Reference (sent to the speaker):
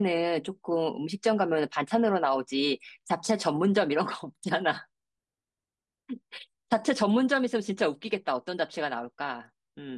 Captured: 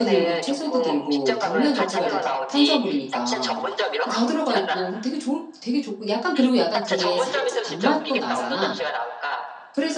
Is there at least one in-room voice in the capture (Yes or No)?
Yes